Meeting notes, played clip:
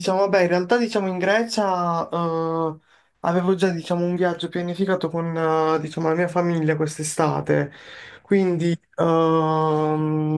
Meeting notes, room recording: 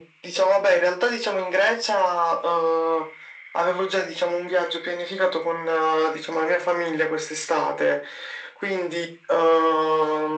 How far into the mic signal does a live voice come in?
none

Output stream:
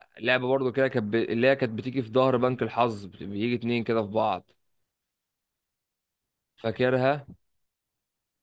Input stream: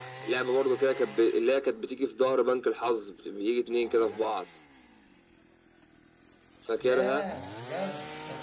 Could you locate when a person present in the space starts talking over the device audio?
6.8 s

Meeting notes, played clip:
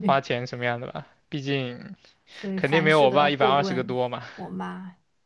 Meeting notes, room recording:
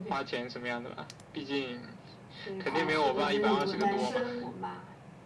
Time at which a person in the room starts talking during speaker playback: 2.6 s

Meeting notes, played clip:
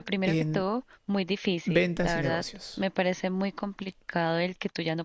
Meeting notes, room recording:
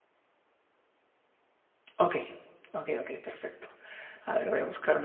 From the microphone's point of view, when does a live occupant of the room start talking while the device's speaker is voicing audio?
2.0 s

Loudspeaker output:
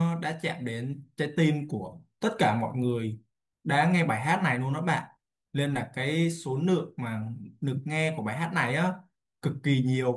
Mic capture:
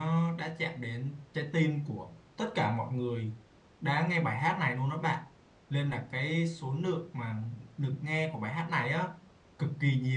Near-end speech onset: none

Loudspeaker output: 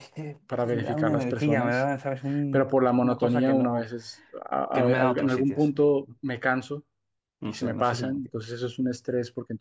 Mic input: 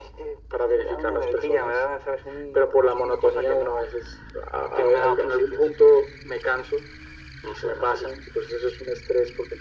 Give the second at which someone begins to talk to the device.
none

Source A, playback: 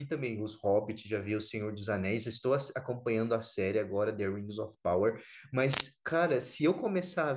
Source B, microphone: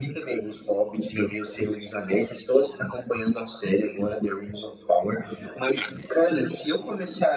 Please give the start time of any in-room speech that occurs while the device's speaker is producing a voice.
none

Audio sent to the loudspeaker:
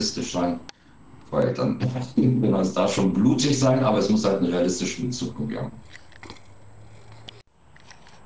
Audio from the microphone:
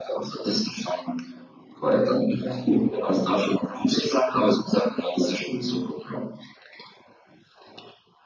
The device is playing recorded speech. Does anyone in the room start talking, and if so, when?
none

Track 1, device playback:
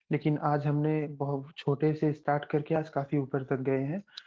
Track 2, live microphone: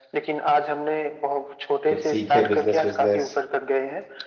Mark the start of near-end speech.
1.9 s

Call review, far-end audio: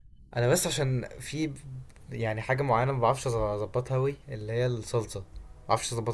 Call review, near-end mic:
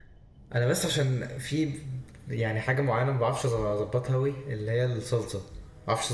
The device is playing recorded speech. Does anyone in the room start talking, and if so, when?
none

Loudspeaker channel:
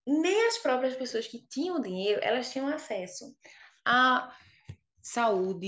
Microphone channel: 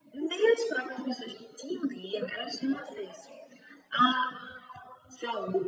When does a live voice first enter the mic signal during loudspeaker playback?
none

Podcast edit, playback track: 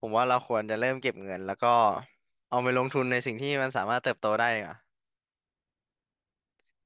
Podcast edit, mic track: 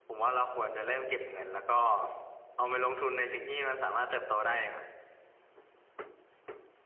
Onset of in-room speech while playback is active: none

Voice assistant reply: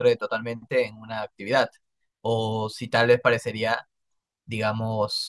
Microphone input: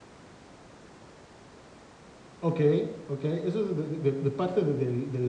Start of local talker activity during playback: 2.4 s

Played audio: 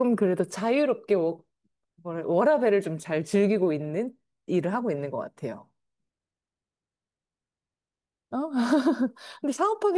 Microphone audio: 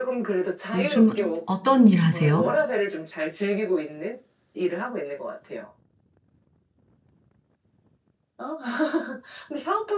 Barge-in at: 0.7 s

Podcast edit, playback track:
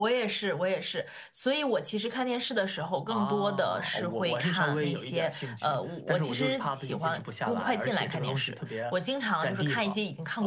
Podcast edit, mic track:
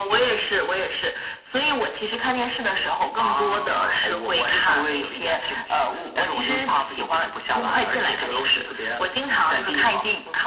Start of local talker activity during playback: none

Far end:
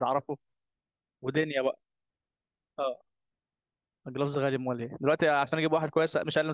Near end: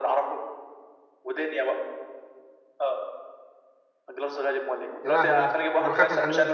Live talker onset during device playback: 5.0 s

